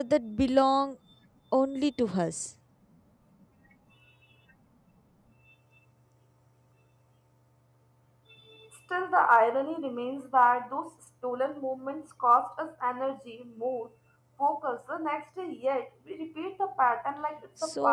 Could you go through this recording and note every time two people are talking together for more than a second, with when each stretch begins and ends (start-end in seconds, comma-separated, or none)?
none